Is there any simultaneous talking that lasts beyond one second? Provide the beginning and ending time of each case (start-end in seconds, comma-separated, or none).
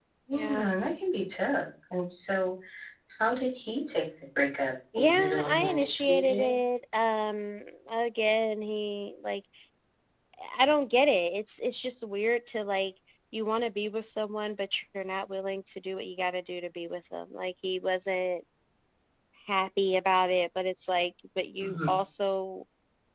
5.0-6.5